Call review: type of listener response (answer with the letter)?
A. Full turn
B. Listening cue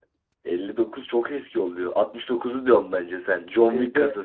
A